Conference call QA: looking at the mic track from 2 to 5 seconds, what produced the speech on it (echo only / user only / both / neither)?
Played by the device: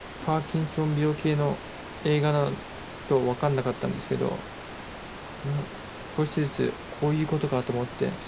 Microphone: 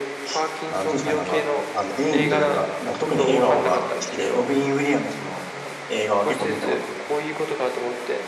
both